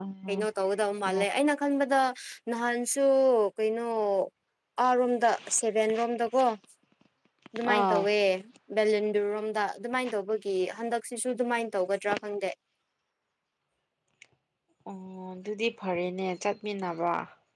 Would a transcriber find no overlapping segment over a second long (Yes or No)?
Yes